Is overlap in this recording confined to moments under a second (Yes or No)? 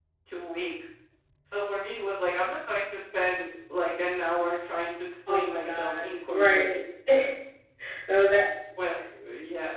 No